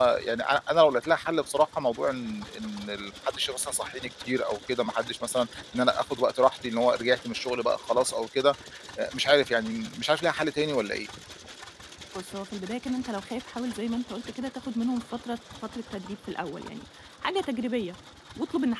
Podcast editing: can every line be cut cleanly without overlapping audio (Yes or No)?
Yes